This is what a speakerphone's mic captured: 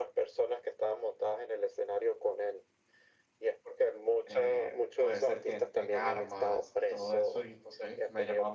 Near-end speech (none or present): present